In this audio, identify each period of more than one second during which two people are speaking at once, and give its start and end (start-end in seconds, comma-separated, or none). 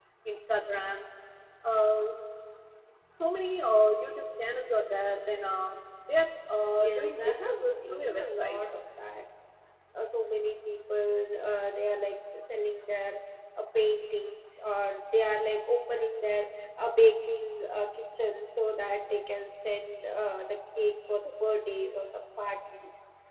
6.8-8.6